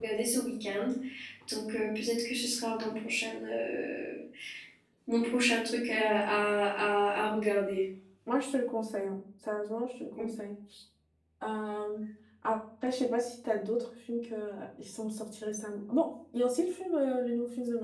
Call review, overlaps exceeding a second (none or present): none